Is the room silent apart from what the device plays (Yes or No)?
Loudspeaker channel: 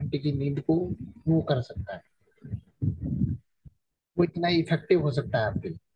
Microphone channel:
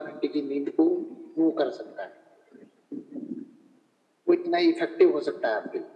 Yes